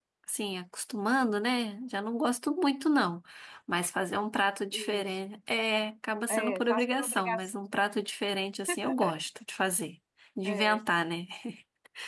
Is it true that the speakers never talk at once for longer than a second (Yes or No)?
No